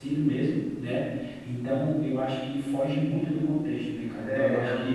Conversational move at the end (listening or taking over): taking over